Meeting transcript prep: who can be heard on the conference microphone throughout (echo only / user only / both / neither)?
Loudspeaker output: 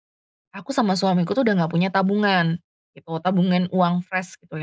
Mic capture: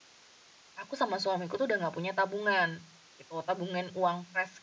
echo only